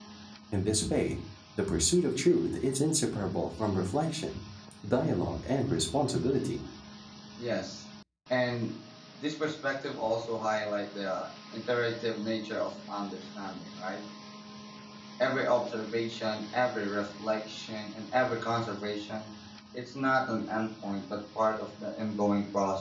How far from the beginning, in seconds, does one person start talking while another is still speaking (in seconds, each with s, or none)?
none